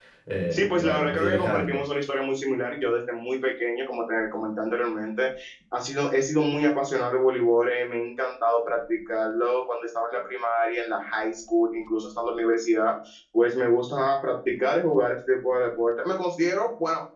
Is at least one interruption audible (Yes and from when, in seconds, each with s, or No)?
Yes, from 0.5 s